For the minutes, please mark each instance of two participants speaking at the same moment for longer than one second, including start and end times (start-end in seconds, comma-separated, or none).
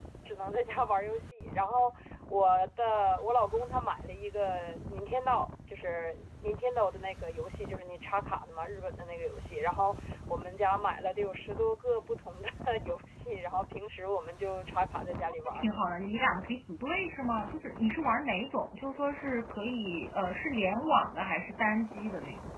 none